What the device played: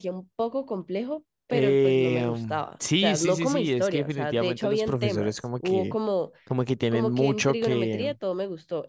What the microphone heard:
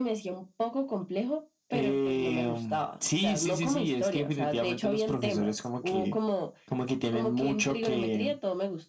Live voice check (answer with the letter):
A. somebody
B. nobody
B